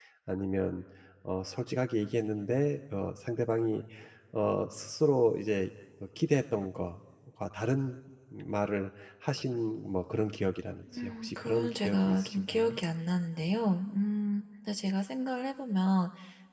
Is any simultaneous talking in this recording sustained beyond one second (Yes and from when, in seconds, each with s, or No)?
Yes, from 10.9 s